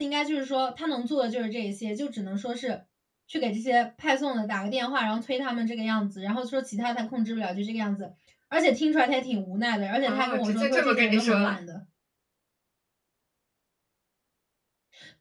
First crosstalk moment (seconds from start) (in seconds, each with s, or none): 10.0 s